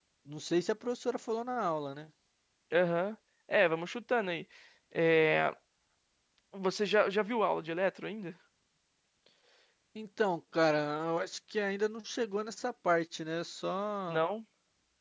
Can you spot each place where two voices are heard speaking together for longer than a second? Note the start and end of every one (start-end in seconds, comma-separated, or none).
none